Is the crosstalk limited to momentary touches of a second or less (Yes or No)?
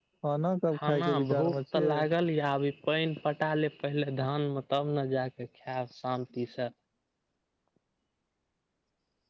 No